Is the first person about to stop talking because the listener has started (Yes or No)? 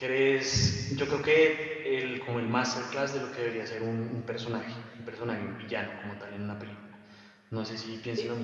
Yes